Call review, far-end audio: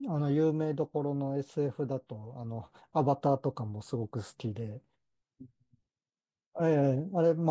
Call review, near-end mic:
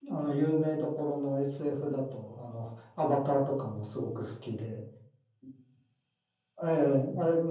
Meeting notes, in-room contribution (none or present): none